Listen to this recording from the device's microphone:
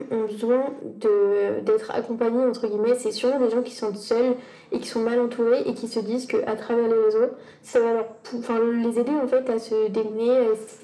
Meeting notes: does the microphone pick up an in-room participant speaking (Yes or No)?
No